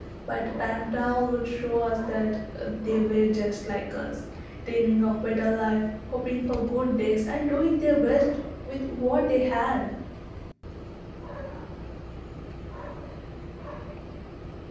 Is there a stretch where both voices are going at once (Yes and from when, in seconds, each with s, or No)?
No